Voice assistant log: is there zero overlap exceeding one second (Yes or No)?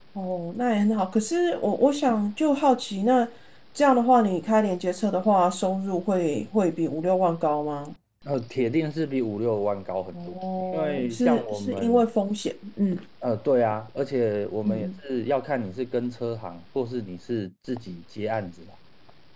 No